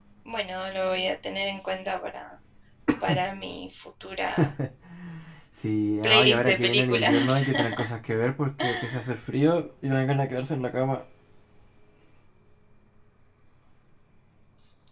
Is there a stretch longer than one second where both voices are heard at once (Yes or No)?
Yes